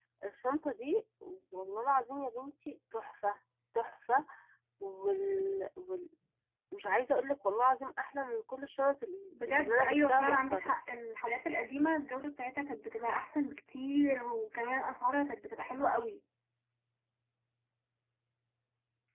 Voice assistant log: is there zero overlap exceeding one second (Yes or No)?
No